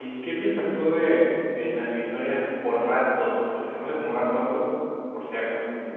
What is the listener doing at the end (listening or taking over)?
taking over